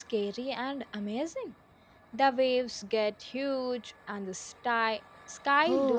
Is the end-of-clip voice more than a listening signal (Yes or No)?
Yes